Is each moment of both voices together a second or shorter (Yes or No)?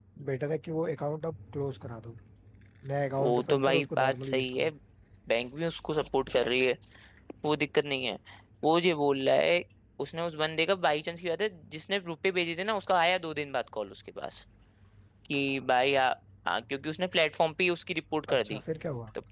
No